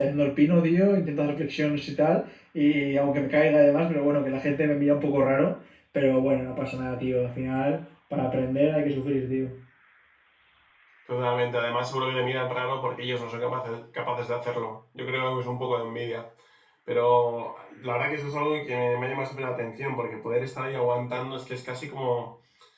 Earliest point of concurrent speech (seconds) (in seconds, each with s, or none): none